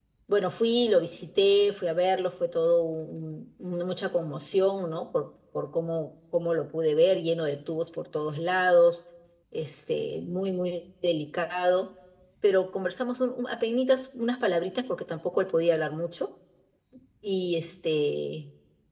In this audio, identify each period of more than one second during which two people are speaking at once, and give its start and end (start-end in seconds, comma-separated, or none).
none